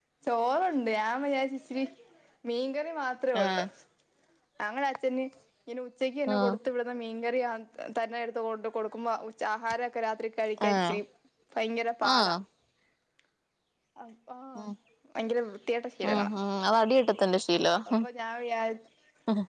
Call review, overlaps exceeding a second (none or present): none